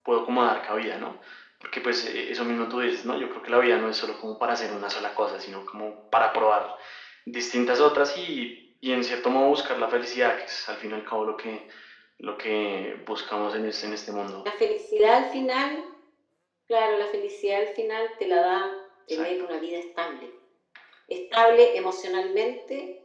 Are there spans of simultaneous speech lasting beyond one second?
No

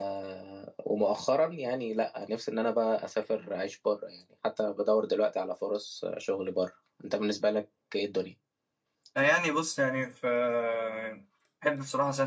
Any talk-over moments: No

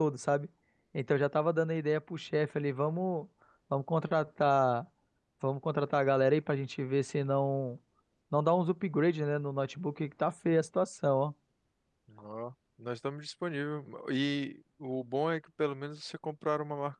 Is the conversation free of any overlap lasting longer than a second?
Yes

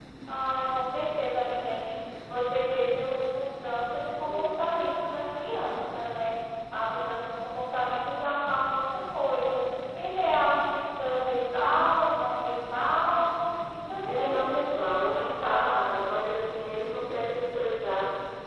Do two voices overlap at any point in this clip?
Yes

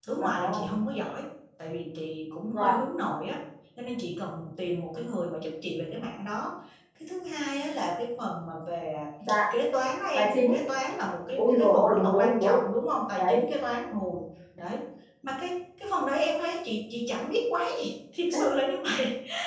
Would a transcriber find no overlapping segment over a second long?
No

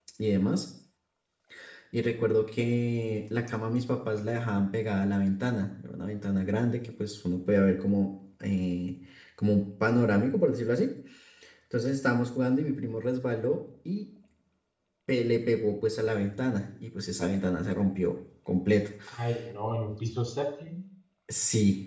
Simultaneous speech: No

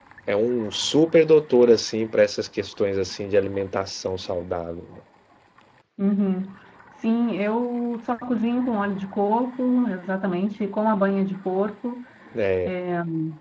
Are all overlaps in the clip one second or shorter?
Yes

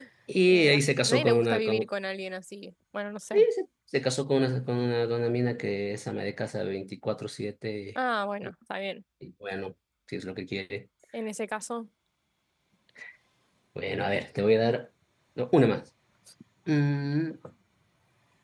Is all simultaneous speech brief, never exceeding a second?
No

